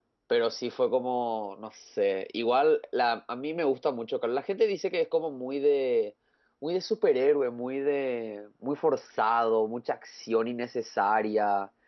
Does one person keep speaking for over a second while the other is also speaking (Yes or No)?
No